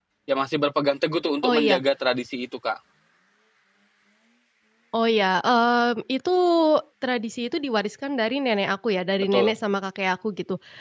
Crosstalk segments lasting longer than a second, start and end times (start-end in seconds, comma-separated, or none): none